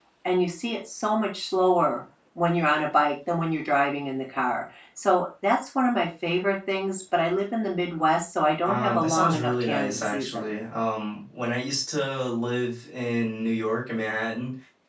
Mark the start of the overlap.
8.6 s

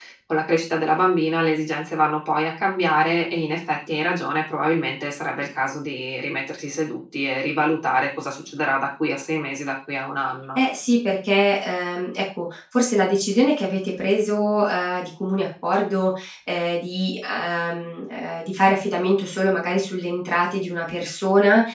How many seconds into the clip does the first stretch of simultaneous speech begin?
none

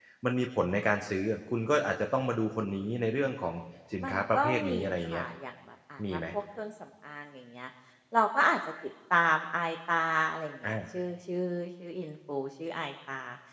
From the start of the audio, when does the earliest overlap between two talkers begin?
4.0 s

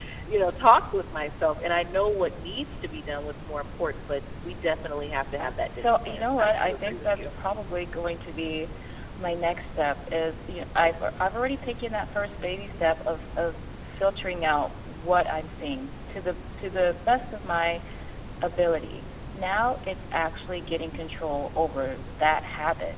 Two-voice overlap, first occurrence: 5.4 s

